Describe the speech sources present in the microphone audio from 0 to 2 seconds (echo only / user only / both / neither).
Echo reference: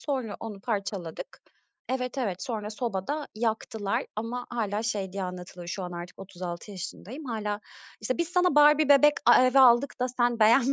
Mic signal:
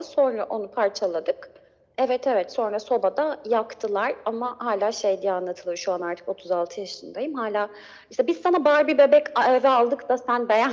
echo only